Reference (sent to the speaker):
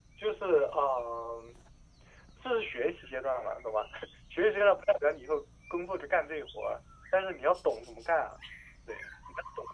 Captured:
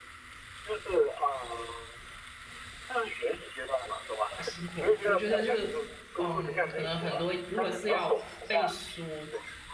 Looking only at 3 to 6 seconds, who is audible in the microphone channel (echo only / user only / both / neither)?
both